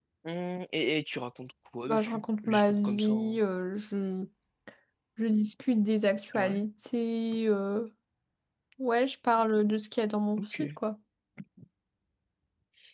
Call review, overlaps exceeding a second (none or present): present